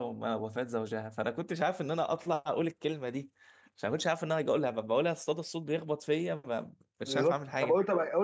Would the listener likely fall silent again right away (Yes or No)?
No